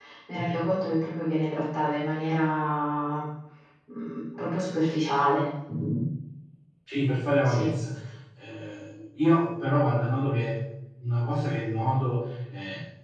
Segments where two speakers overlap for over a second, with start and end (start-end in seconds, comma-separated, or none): none